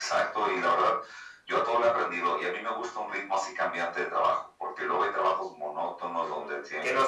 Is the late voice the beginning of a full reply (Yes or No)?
Yes